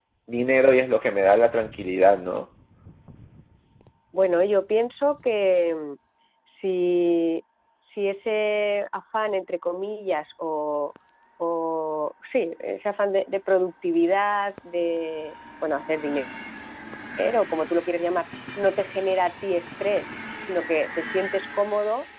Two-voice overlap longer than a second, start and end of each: none

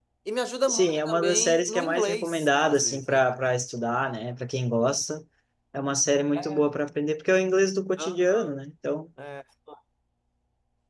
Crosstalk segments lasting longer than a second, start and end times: 0.7-3.2

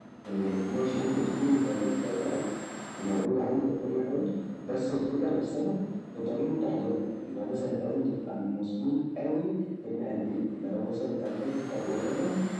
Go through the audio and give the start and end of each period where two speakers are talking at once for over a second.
none

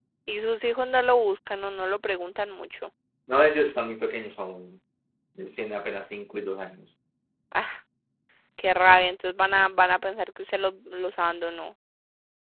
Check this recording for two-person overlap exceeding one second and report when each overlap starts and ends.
none

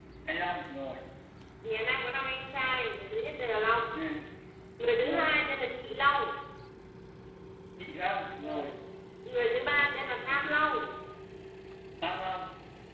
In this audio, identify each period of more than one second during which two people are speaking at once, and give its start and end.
none

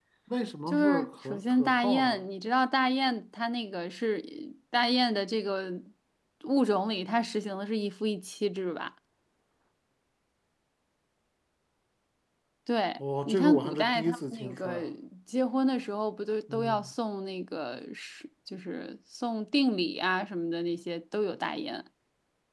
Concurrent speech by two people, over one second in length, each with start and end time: 0.7-2.2, 13.0-14.8

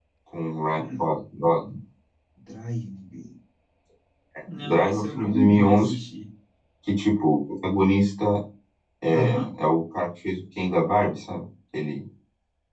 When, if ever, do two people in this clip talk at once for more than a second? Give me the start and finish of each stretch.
4.6-5.9

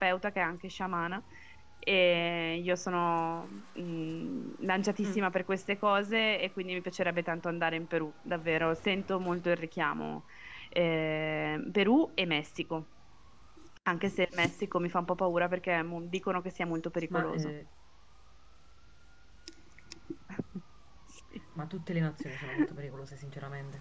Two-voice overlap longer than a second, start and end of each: none

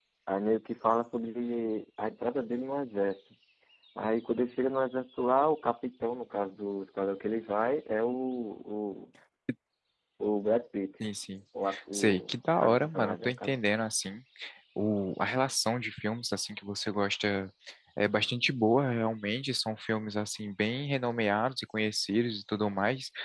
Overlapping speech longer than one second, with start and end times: 11.9-13.6

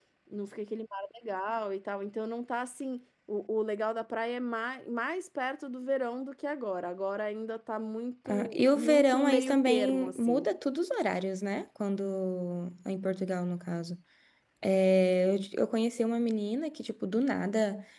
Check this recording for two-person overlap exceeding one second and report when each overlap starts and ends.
8.3-10.5

